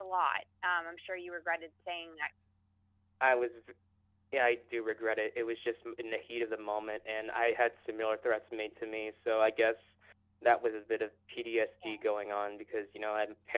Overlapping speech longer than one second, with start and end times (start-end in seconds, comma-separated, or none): none